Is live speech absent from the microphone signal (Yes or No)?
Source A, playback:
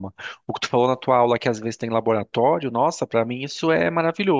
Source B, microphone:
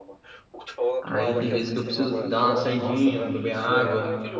No